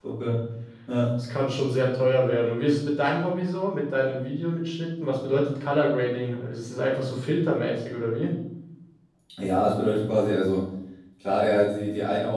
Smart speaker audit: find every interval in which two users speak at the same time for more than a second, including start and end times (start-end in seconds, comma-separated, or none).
none